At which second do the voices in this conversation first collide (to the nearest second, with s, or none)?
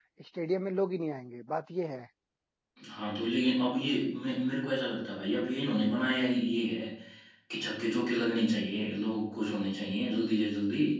none